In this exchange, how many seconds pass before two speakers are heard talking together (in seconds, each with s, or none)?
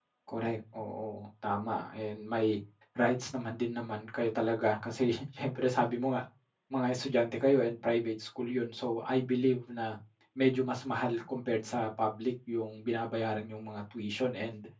none